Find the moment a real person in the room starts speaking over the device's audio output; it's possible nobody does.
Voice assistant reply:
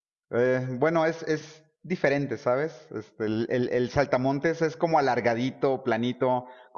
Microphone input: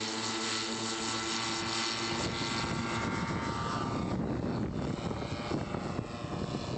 none

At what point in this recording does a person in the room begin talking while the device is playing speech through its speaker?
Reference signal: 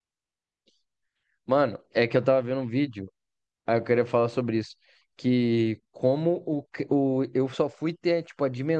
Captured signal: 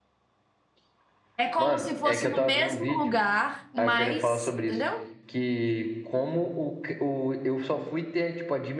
1.4 s

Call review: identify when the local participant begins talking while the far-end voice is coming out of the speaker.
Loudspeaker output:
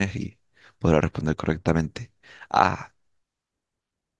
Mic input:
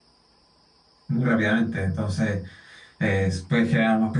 1.1 s

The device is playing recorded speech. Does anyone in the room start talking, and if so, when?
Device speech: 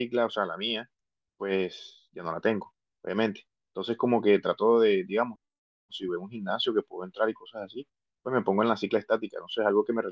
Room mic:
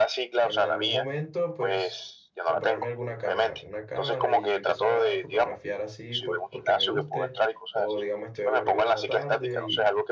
0.4 s

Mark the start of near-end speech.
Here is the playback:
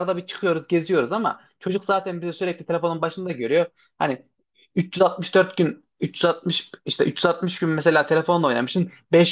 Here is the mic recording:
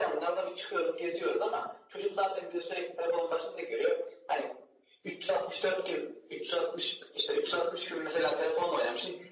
none

